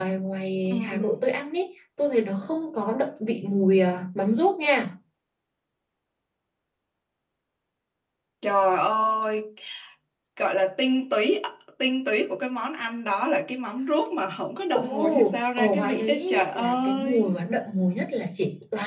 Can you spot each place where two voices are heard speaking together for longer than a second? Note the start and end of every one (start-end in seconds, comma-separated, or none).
14.7-17.3